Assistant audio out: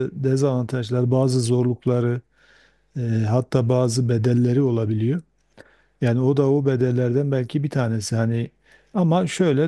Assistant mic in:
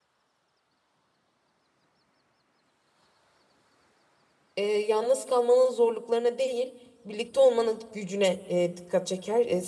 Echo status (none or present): none